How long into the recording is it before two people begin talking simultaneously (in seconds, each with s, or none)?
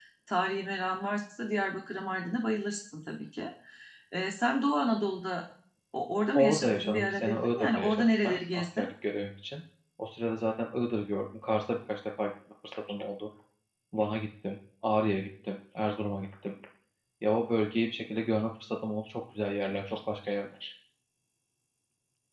6.3 s